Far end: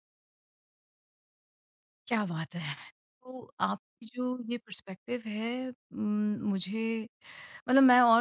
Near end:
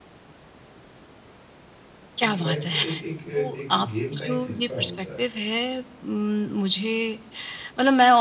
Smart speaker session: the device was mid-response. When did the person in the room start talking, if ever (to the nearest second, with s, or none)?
2 s